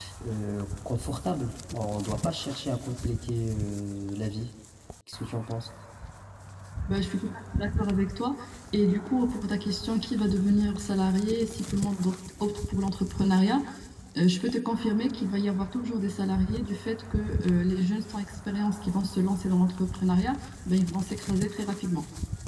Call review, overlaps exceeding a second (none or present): none